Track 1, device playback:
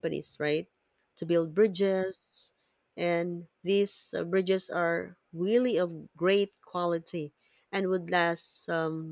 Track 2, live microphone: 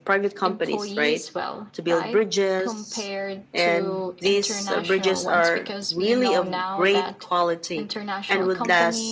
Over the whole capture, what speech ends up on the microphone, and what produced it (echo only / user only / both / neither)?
both